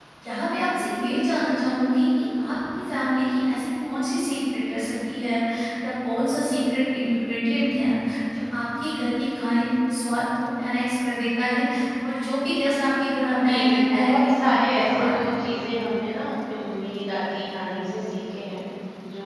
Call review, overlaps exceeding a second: present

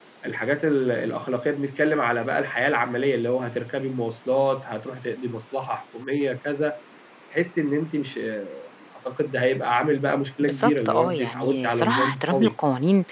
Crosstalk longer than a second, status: present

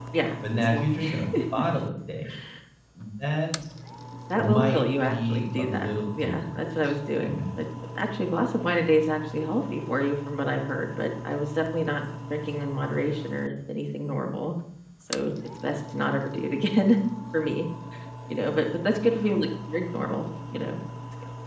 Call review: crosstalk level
present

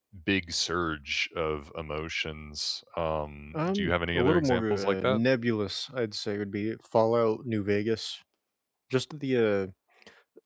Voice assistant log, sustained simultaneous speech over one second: present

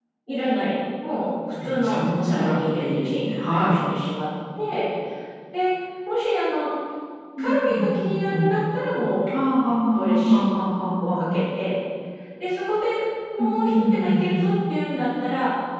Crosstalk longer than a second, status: present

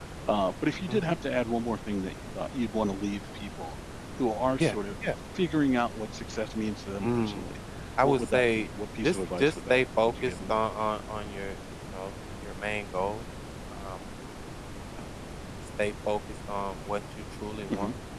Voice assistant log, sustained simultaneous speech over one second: present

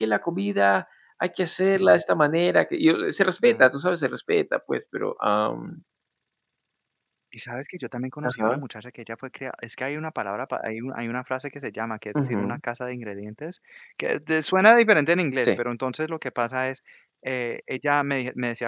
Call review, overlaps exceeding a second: none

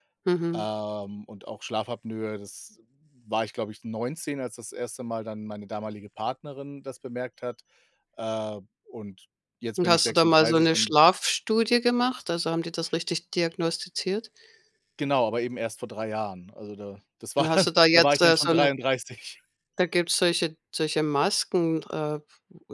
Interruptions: present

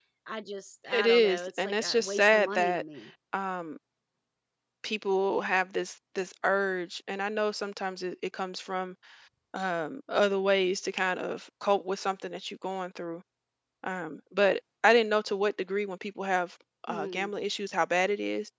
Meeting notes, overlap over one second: present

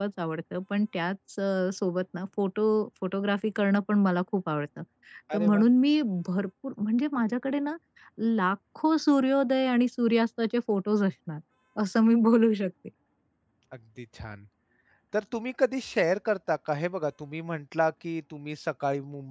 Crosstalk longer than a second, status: none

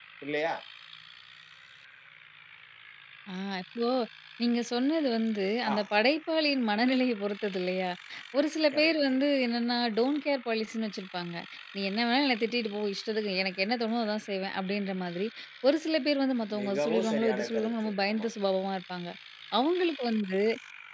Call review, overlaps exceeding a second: present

